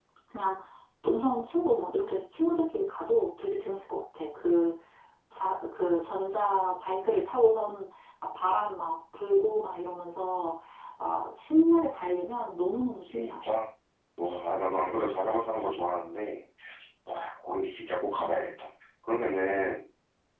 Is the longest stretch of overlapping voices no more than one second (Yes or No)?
Yes